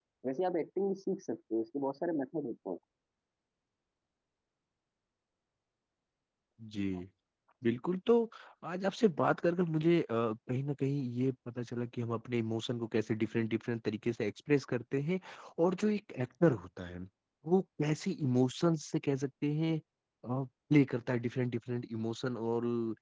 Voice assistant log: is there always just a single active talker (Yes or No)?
Yes